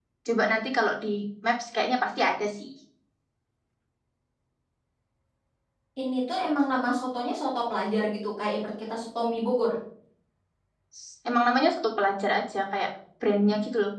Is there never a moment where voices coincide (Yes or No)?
Yes